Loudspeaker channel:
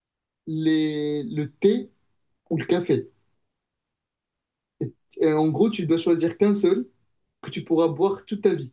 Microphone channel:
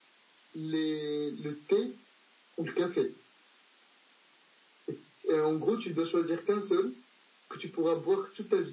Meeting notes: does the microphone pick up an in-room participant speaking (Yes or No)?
No